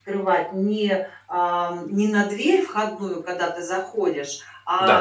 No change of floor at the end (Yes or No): Yes